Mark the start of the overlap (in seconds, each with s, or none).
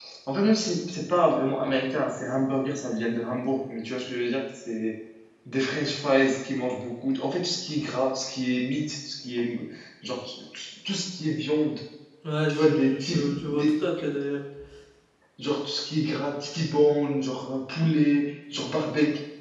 12.5 s